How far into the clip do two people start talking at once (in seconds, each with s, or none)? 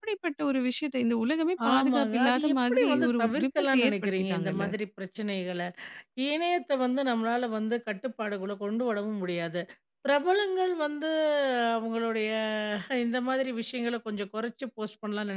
1.6 s